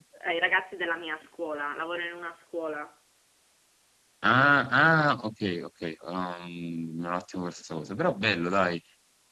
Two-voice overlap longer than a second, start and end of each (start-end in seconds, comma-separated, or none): none